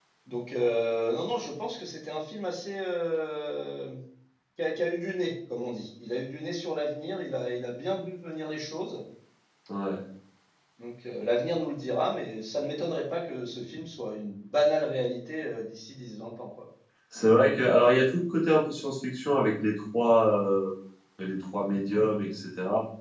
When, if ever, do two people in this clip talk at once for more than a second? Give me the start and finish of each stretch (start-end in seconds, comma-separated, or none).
none